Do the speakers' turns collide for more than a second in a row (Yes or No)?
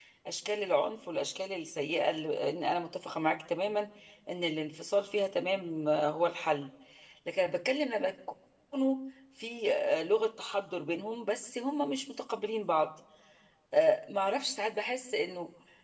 No